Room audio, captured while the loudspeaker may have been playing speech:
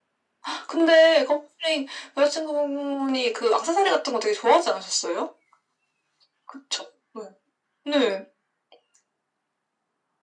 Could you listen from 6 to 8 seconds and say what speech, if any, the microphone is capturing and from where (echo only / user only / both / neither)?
echo only